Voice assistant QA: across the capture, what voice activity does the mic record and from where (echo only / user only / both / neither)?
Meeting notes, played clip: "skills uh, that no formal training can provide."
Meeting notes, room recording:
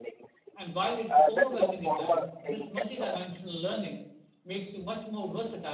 both